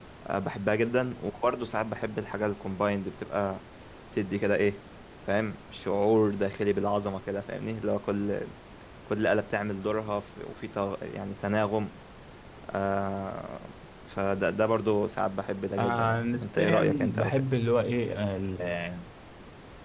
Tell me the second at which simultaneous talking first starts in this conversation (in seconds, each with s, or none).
15.8 s